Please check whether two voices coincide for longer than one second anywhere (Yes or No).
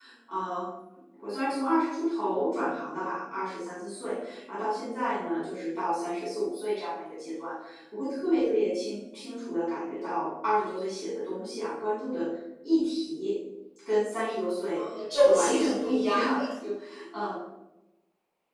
Yes